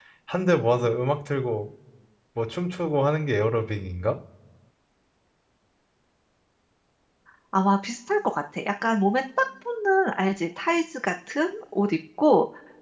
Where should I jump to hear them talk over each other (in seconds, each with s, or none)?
none